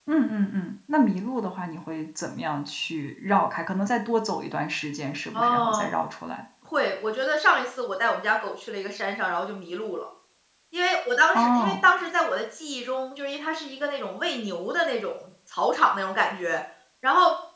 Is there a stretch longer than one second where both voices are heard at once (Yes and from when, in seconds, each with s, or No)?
No